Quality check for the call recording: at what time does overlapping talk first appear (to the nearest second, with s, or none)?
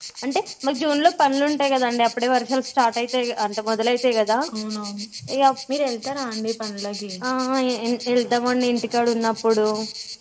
none